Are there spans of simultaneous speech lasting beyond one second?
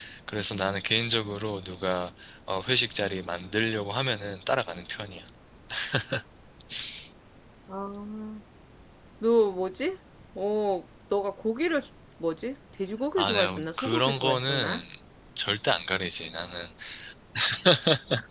Yes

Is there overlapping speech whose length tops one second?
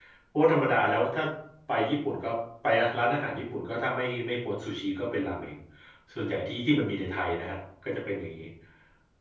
No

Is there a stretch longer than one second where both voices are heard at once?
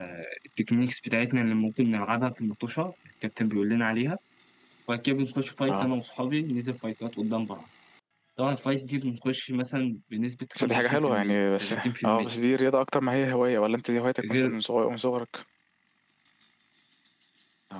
Yes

